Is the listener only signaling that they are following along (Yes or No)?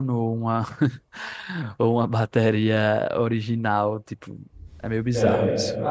No